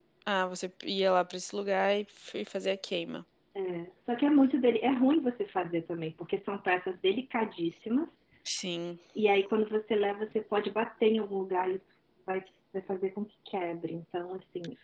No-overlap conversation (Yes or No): Yes